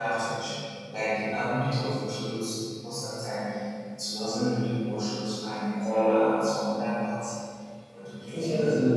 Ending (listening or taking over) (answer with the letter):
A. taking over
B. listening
B